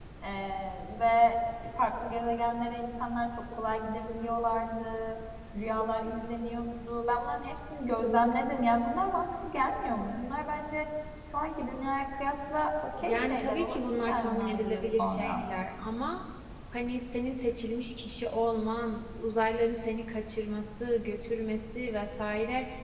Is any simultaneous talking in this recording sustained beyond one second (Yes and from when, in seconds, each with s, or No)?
Yes, from 13.0 s